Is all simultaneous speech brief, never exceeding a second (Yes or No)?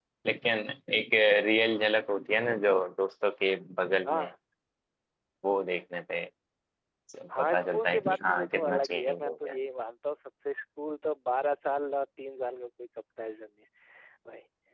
No